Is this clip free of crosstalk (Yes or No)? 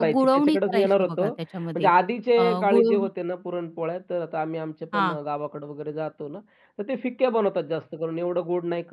No